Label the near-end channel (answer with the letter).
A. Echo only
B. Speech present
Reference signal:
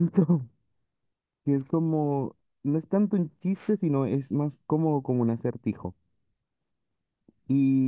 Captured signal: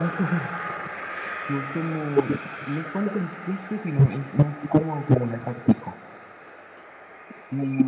A